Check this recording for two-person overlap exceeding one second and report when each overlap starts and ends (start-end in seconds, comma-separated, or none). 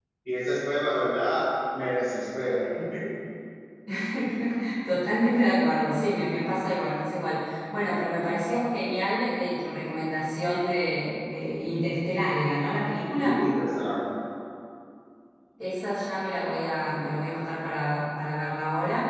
none